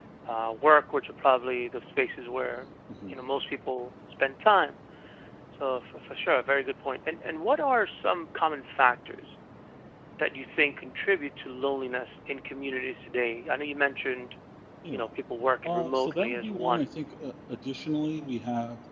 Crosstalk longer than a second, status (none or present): present